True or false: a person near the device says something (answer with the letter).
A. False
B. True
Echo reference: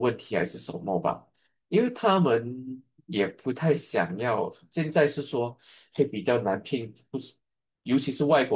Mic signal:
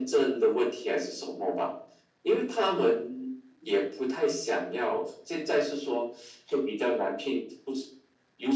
A